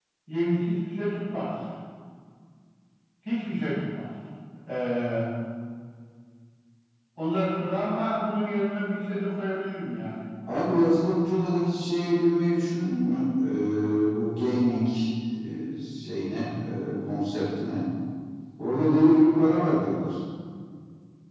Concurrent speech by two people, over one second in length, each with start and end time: none

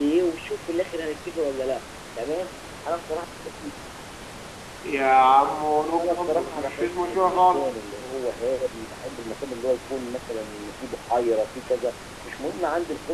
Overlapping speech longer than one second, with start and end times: 6.0-7.8

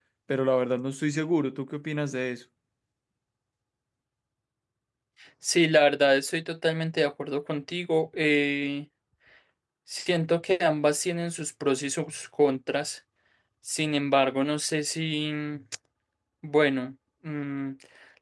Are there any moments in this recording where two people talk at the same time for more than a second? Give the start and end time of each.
none

